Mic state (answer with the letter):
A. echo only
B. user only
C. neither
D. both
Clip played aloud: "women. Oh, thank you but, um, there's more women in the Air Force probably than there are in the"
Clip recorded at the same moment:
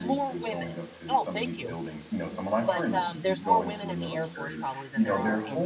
D